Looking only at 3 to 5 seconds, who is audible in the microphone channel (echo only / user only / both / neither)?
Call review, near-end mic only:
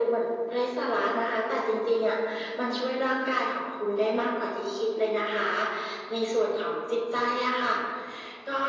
echo only